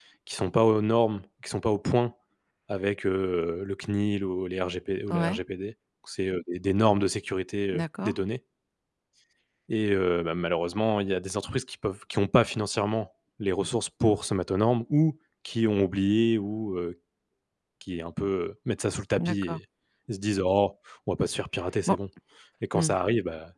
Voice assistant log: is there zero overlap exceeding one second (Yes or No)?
Yes